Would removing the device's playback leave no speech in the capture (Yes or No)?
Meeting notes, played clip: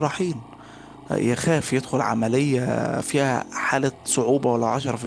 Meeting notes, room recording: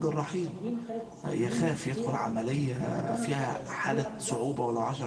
No